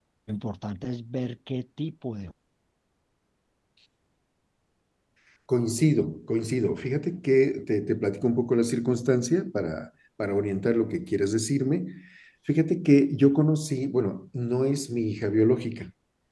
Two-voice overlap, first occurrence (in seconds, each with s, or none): none